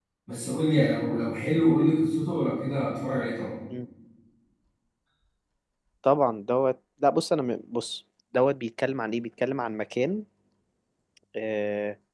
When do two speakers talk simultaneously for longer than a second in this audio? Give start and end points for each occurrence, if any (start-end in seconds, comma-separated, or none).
none